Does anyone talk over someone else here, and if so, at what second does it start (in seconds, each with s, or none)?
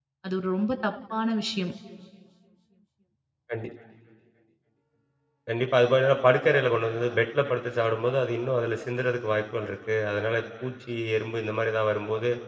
none